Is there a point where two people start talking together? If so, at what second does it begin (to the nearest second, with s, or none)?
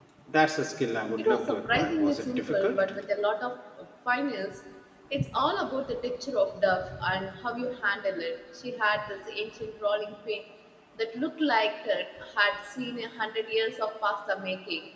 1 s